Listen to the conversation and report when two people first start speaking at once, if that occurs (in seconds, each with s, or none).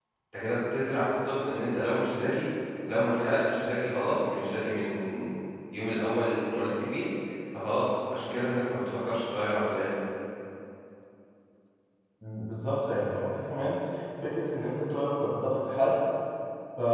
none